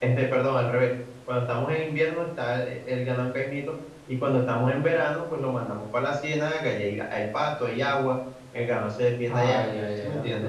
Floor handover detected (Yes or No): Yes